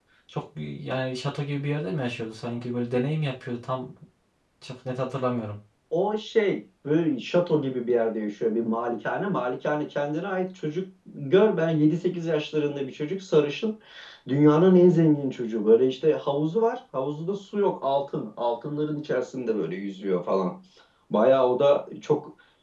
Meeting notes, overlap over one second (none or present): none